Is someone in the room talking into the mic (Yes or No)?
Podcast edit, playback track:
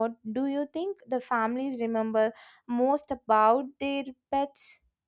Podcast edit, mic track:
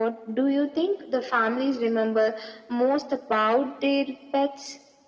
No